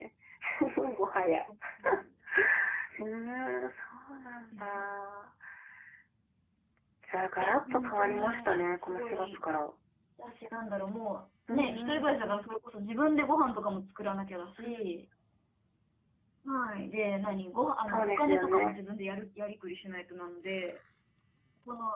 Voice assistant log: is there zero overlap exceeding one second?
No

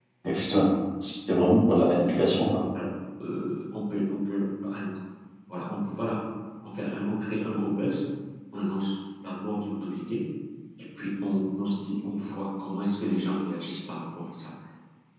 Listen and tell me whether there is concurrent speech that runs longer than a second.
No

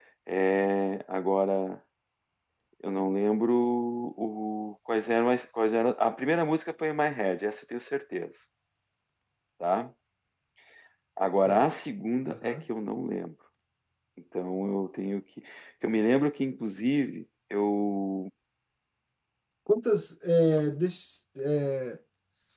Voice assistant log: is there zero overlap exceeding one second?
Yes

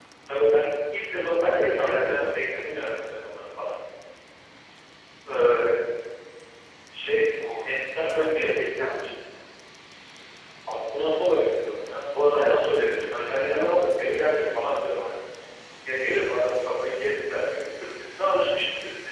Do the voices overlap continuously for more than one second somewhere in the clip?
Yes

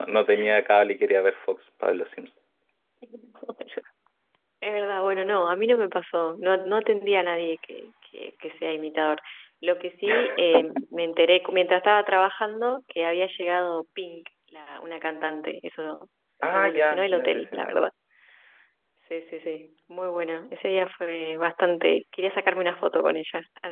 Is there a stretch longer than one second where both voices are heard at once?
Yes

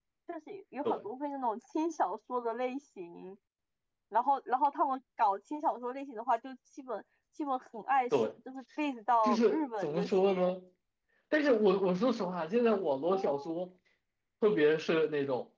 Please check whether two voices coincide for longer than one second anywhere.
Yes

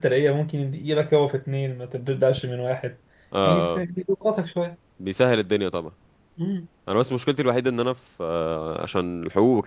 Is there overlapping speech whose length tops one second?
No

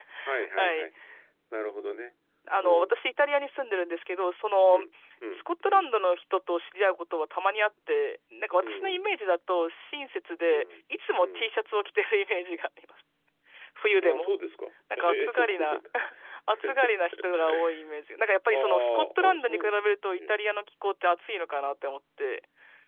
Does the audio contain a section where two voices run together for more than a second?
Yes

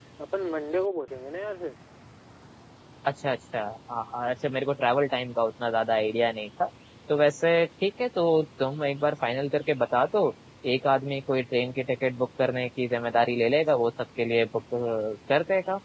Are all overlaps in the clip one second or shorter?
Yes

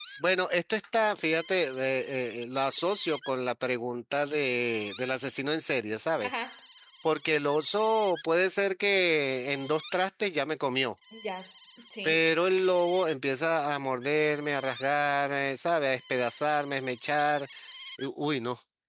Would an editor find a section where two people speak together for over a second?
No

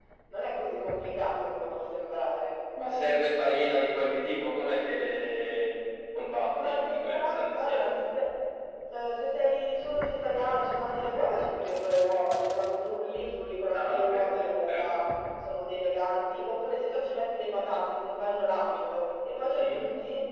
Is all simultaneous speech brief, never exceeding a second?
No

